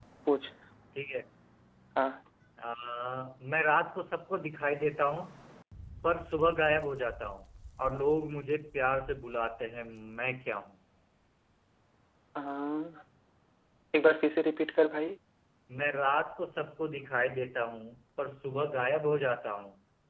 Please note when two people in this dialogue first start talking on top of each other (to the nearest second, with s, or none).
none